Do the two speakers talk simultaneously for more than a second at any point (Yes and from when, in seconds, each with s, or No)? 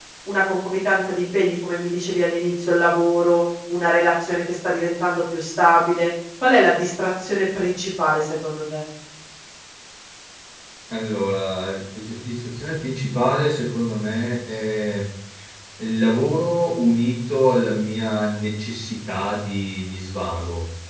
No